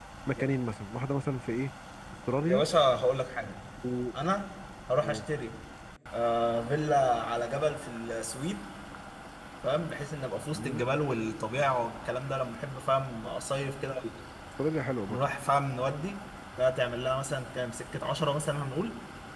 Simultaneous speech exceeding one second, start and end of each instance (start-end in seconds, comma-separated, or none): none